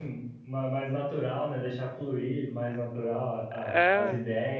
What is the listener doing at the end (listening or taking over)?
listening